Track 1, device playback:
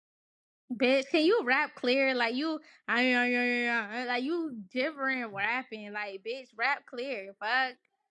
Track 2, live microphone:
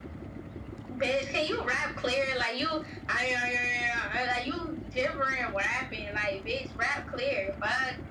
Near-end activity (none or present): none